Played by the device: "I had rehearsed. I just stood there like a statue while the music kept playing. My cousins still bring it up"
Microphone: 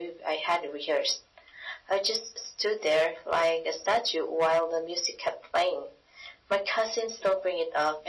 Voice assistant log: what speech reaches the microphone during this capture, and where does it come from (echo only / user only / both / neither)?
echo only